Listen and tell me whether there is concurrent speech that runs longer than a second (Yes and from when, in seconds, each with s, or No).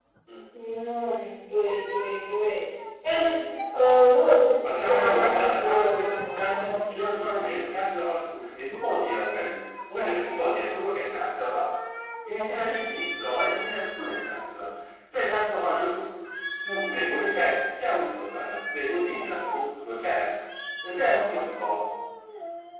Yes, from 4.6 s